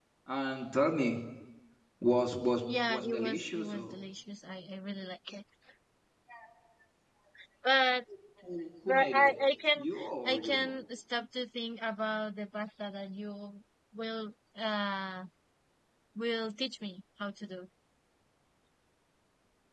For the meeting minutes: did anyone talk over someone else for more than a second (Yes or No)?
Yes